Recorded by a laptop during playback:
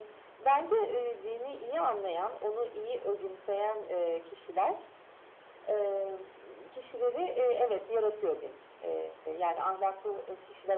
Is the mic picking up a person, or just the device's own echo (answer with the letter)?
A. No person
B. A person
A